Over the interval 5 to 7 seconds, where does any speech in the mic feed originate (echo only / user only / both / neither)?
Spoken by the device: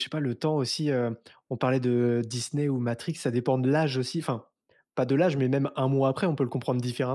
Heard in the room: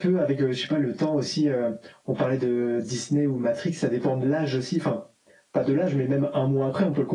echo only